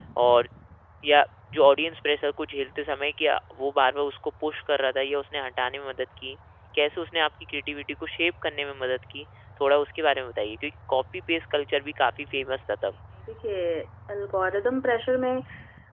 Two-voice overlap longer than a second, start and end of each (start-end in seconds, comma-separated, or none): none